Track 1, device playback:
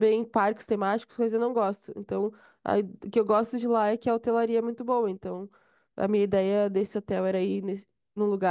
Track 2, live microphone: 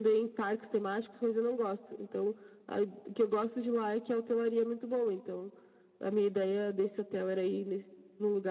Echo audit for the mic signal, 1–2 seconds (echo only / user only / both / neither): echo only